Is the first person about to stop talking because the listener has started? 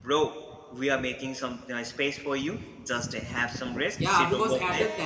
Yes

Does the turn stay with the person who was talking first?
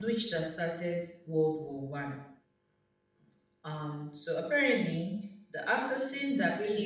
No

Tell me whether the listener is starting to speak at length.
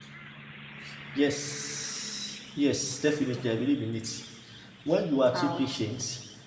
No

